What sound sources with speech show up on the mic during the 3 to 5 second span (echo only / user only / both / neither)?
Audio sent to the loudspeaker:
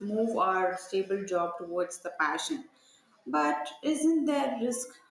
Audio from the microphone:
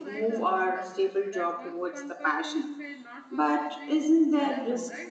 both